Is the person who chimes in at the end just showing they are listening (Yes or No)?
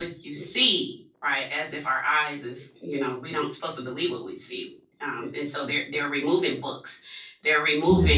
Yes